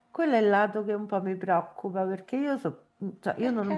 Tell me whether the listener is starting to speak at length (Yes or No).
No